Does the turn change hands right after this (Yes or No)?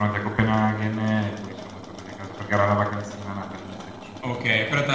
Yes